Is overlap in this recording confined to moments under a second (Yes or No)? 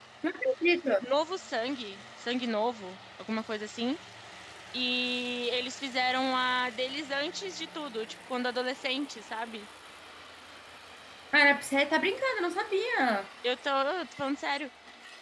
Yes